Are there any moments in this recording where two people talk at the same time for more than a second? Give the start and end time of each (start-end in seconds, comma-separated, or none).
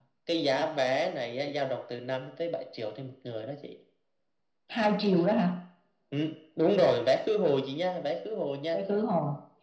none